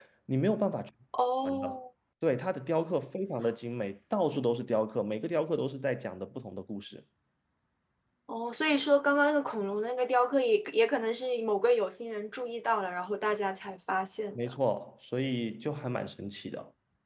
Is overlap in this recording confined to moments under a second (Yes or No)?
Yes